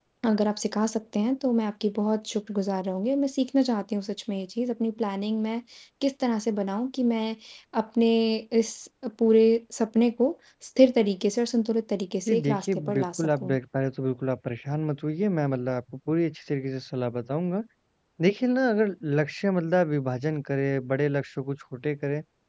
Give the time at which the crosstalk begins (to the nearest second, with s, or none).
12 s